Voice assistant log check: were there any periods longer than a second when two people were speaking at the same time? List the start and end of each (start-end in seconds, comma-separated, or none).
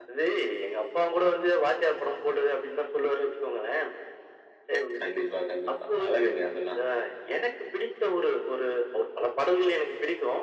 none